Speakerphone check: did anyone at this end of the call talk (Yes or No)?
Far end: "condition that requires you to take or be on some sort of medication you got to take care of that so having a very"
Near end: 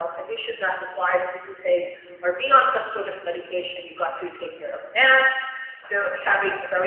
No